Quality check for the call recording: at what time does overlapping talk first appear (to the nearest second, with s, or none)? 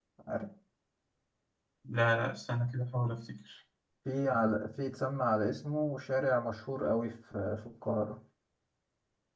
none